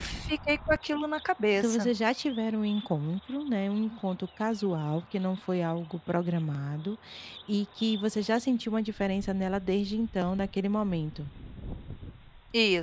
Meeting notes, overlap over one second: none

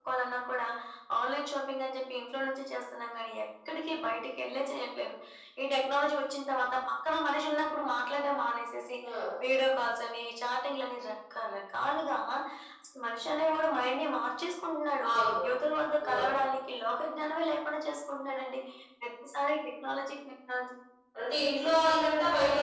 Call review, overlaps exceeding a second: none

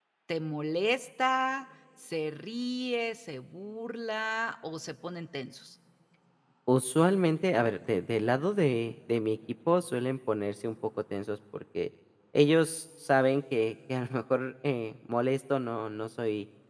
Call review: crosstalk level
none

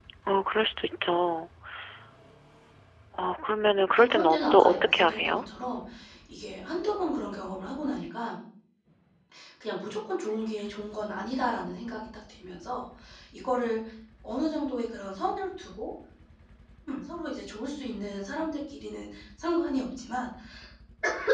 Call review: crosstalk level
present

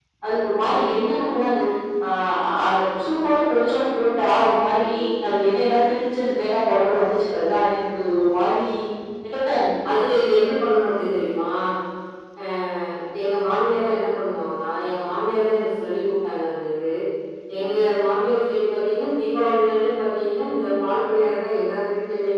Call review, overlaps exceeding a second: none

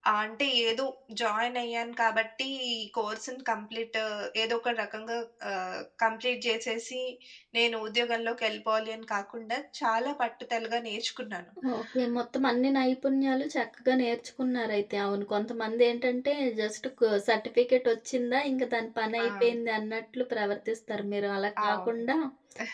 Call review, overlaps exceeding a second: none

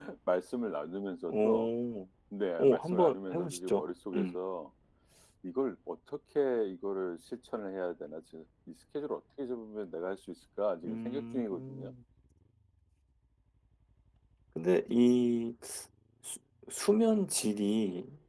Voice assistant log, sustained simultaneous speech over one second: present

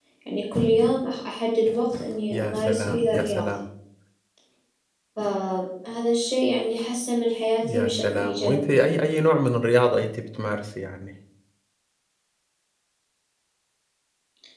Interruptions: present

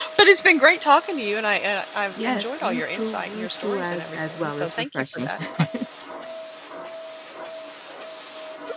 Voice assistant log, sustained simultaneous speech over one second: present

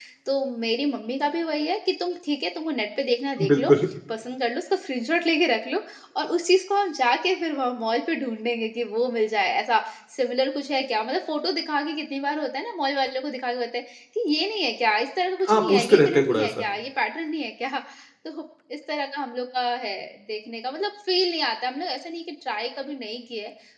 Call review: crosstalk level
present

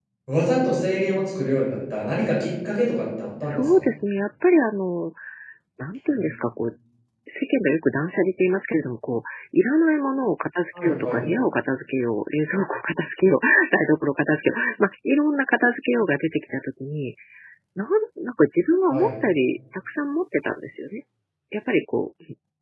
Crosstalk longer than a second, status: none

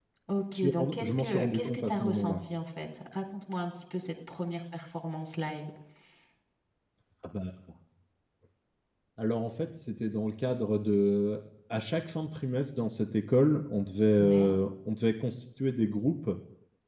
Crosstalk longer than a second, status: present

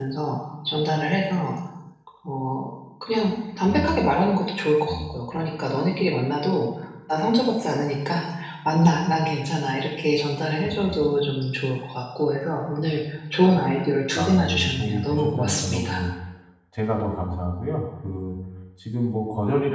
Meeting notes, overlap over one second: present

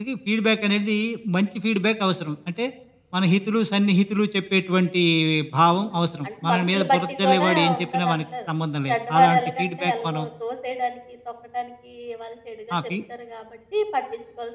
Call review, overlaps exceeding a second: present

